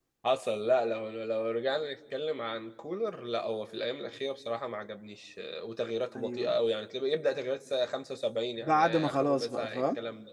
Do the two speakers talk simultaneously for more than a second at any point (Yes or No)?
Yes